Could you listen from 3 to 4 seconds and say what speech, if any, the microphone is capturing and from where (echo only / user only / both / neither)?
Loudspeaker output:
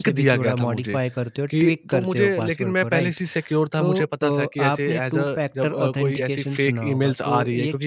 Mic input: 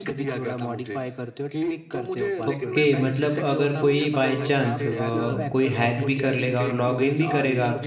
both